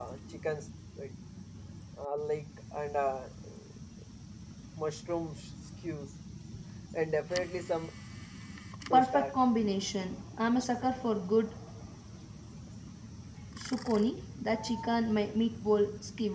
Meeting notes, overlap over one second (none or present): none